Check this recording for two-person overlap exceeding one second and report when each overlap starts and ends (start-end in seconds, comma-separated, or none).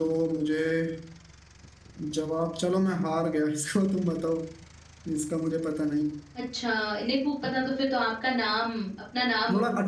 none